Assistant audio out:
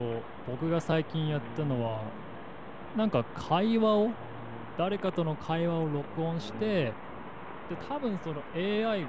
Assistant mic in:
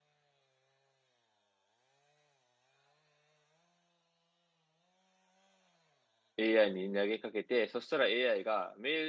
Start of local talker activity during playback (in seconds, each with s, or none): 6.4 s